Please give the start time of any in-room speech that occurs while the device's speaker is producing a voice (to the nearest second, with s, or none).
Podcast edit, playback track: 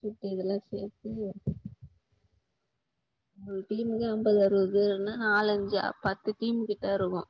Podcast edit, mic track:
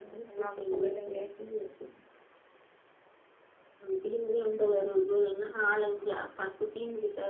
0 s